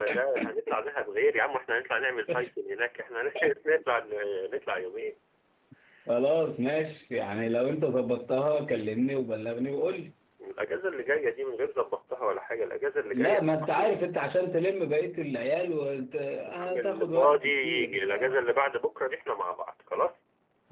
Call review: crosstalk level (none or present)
present